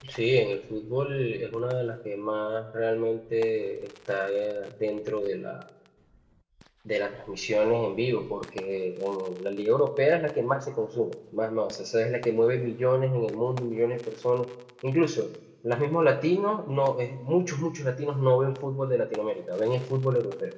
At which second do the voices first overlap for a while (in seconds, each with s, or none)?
none